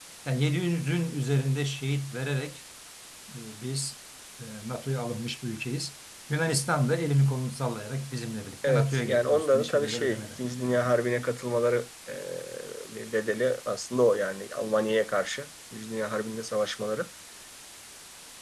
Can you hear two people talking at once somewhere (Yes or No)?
Yes